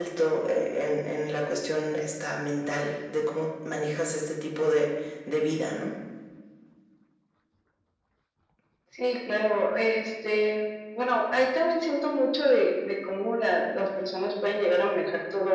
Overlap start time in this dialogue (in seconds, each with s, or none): none